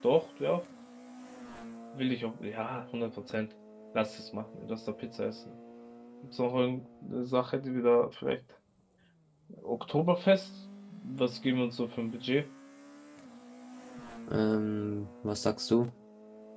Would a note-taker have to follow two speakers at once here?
No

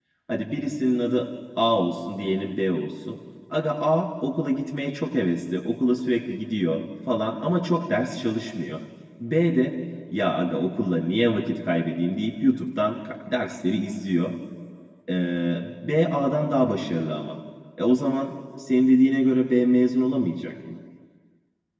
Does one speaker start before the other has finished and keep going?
No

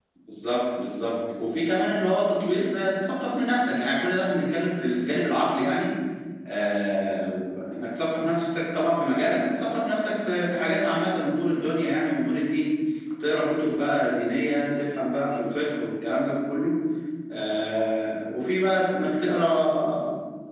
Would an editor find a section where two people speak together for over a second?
No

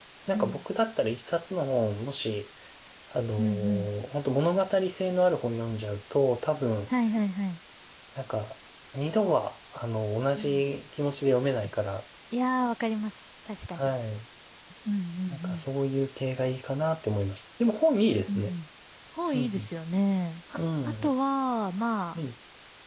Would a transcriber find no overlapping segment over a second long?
Yes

